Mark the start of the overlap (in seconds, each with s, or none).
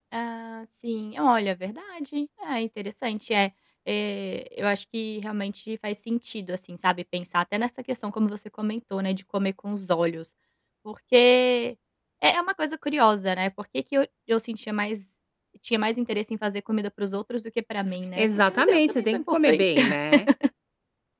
18.2 s